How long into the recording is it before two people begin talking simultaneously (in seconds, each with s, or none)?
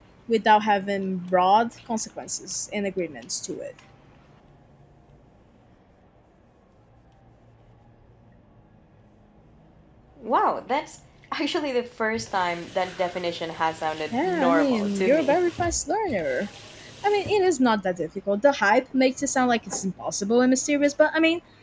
14.1 s